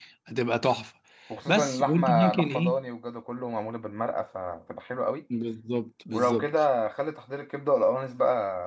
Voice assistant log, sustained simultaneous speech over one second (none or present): present